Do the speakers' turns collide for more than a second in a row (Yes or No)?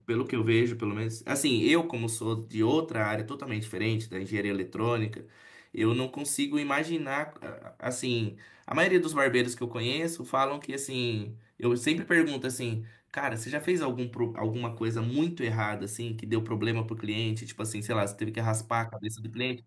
No